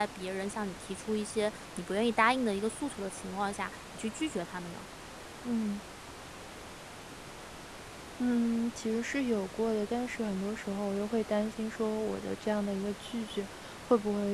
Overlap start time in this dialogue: none

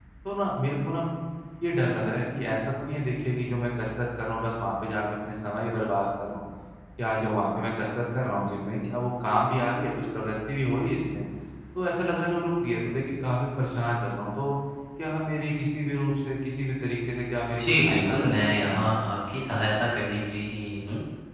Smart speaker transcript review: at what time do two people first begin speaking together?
17.5 s

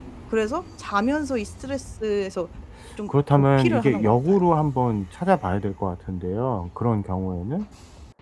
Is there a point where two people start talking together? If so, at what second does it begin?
3.1 s

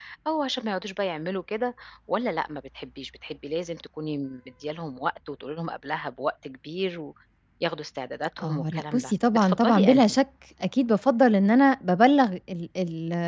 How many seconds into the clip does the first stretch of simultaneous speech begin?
8.4 s

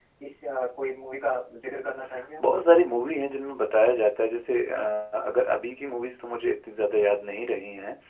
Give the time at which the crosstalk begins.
none

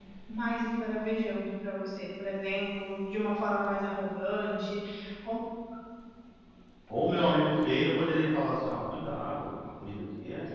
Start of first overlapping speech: none

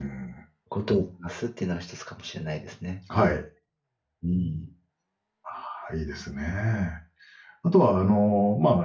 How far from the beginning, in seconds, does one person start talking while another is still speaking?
none

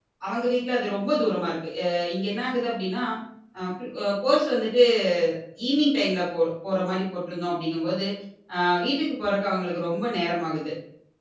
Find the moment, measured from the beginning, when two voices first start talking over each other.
none

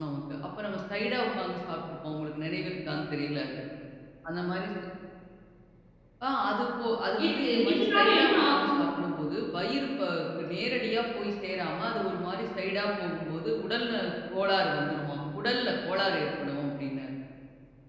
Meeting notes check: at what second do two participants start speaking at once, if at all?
7.2 s

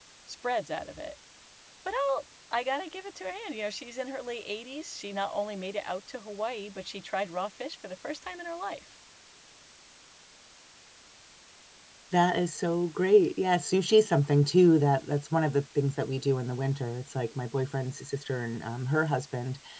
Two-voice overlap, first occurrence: none

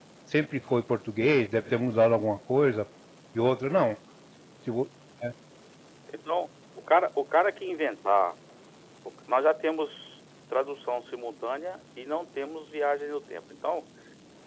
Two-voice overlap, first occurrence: none

